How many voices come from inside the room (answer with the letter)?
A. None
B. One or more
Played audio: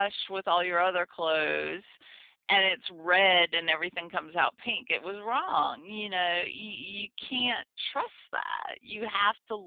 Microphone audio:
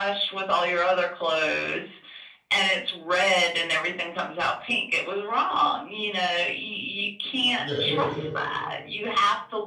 B